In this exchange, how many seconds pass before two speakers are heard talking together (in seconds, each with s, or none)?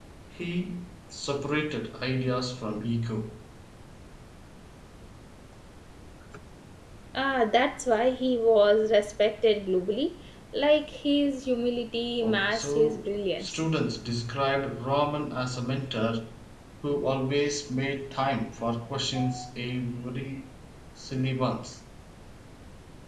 12.2 s